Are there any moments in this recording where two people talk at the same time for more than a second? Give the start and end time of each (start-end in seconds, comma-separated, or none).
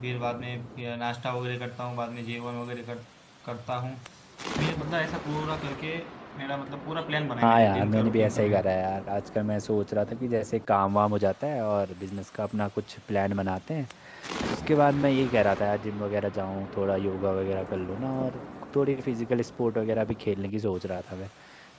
7.4-8.6